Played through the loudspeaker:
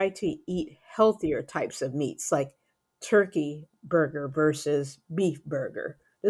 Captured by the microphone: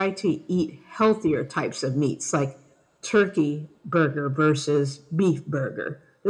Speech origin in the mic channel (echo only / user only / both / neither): echo only